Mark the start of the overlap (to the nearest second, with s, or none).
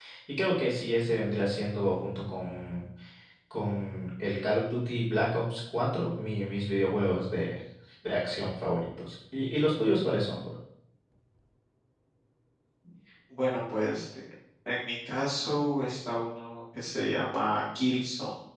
none